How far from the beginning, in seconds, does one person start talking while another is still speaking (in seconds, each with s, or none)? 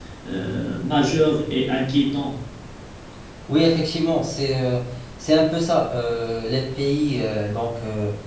none